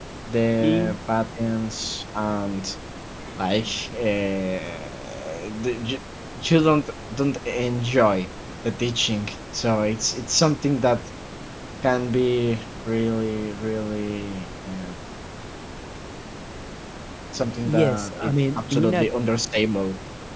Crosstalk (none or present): present